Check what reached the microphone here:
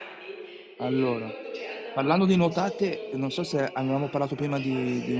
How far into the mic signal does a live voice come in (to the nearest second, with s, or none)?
1 s